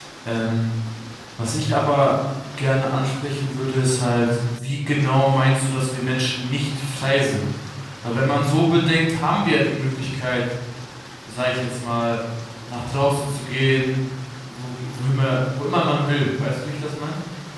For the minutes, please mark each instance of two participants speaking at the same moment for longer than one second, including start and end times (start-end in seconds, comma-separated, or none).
none